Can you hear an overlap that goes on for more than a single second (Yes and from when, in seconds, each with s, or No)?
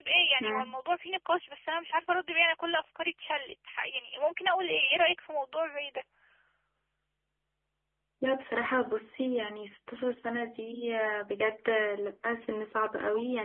No